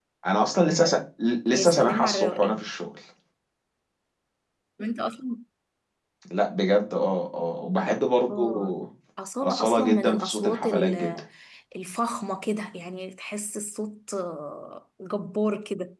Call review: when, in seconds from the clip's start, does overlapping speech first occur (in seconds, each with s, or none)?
1.5 s